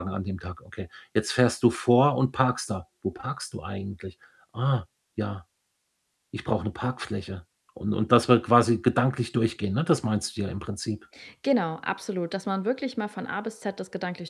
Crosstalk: none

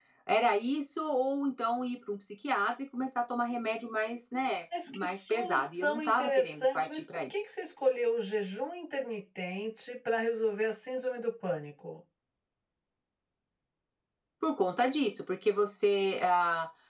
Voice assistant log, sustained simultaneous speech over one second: present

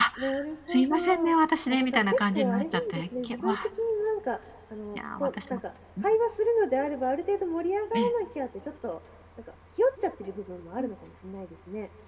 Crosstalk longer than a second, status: present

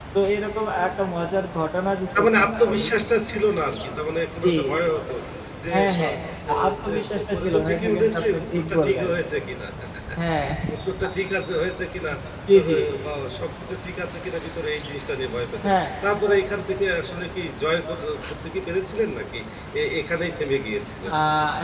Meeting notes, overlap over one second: present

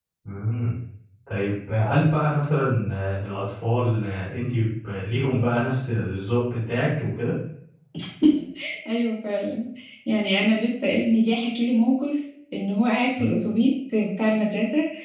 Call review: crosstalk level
none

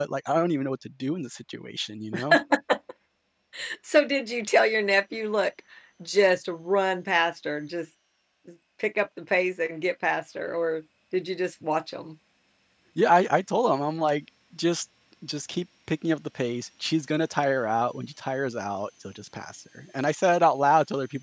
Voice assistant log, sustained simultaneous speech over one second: none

